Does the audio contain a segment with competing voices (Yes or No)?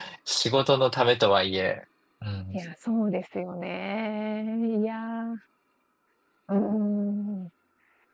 No